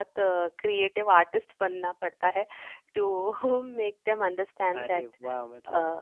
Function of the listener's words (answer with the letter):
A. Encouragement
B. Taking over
B